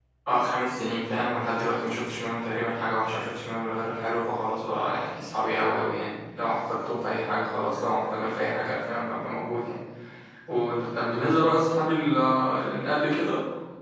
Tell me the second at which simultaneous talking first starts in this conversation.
none

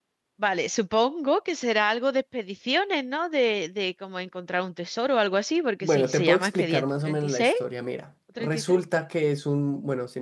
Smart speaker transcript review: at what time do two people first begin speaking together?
6 s

